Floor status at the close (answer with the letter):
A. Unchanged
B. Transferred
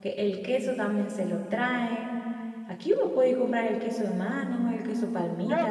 B